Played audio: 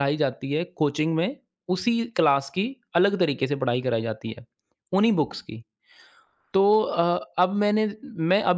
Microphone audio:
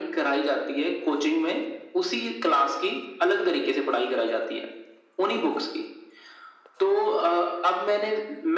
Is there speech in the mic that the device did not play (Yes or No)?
No